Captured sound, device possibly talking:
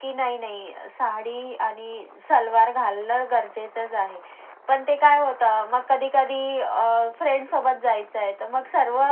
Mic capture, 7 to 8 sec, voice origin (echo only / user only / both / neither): echo only